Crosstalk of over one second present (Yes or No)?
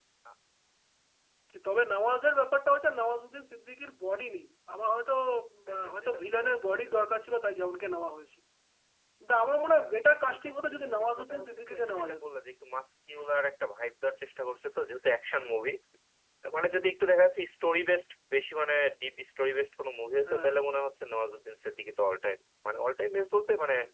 Yes